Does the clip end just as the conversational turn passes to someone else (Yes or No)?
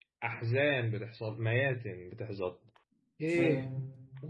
No